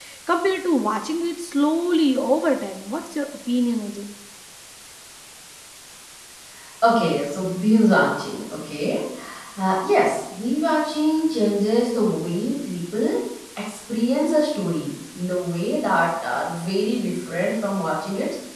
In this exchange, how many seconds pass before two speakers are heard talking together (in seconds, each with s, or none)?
none